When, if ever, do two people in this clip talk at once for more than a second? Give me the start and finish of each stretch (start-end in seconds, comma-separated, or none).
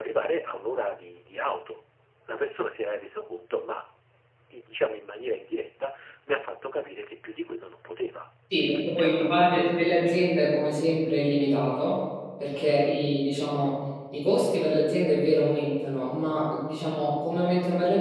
8.5-9.8